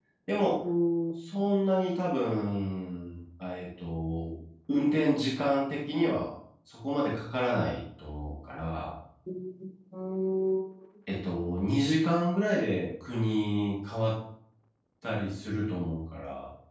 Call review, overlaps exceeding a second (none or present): none